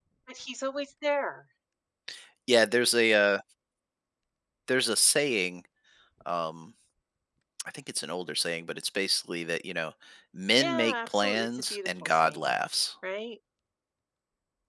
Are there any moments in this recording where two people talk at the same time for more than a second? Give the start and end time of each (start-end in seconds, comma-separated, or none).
10.6-12.5